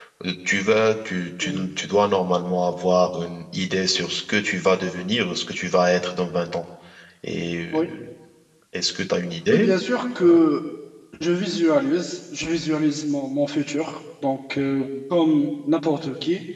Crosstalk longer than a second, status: none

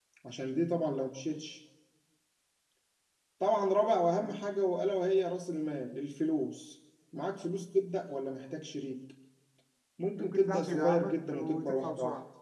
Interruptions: present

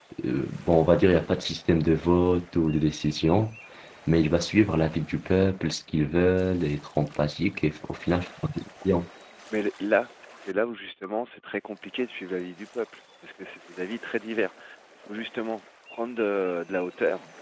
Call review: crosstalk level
none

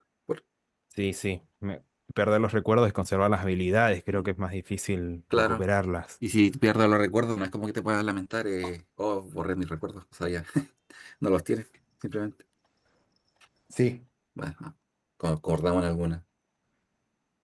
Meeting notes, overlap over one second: none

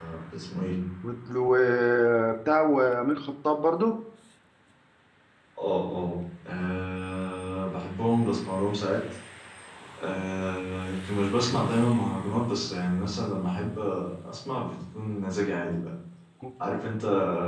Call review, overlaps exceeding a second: none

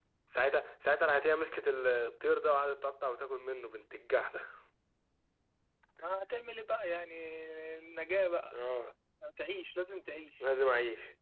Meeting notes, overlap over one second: none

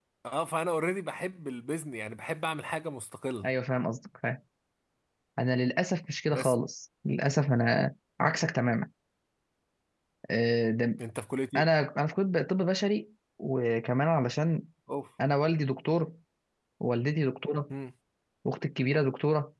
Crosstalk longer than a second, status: none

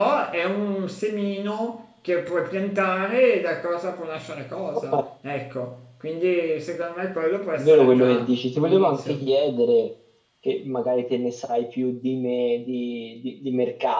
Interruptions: present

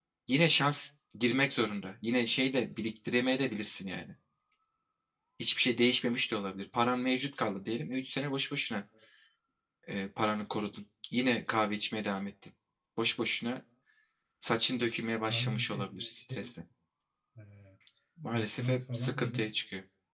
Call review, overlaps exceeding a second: present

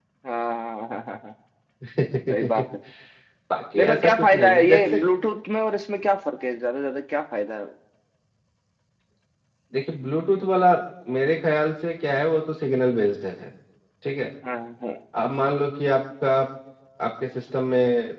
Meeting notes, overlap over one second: present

